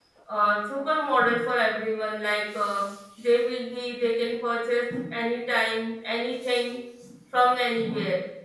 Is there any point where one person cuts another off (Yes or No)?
No